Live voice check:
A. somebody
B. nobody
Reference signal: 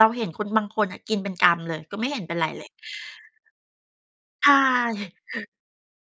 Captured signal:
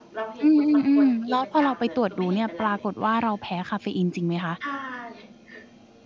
A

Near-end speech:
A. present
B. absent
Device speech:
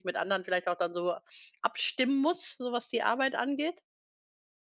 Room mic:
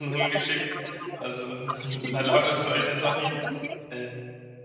A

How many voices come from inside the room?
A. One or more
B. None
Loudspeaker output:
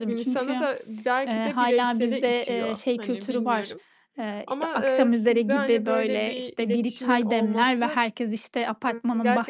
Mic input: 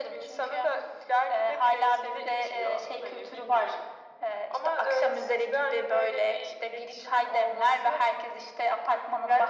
B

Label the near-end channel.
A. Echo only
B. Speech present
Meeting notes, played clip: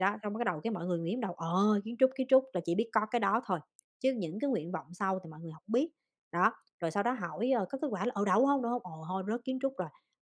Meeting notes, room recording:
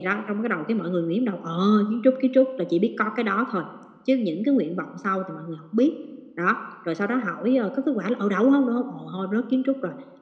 A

